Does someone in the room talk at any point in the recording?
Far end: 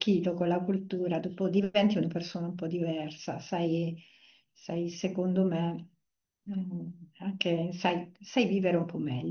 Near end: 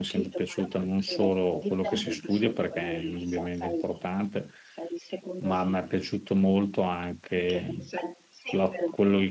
Yes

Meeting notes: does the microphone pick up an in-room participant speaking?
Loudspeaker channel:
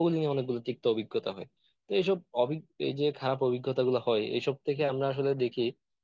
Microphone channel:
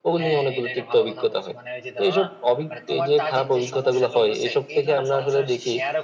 Yes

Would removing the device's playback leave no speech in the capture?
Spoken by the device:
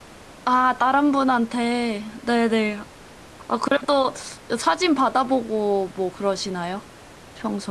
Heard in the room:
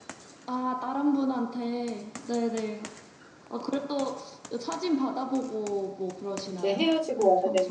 No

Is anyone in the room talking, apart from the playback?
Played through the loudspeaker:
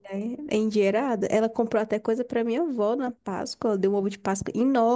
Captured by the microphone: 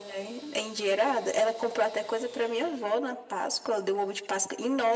No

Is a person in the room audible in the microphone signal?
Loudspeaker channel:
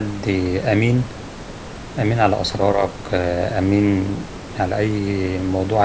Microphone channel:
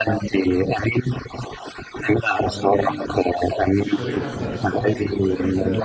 Yes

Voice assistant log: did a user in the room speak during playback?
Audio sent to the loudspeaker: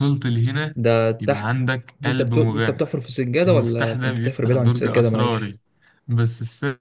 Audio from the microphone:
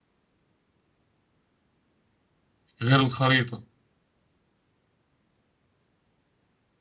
Yes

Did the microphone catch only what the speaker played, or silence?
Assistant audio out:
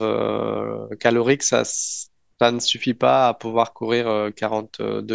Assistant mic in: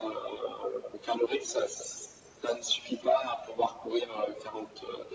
Yes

